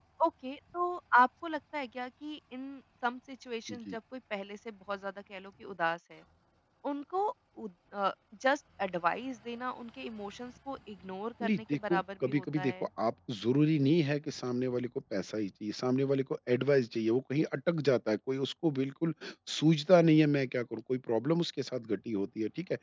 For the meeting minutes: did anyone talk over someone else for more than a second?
Yes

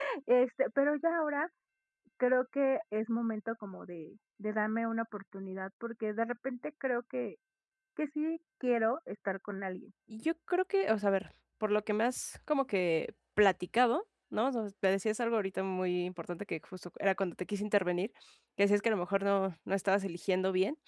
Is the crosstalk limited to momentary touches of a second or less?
Yes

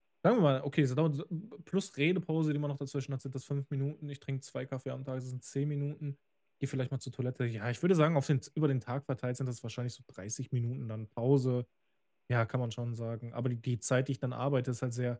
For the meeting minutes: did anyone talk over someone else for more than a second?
No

